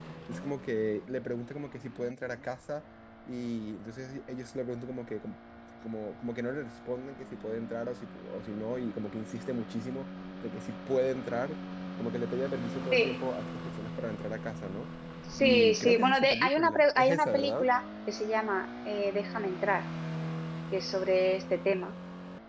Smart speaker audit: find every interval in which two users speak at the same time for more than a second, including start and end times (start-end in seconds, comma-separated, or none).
15.4-17.7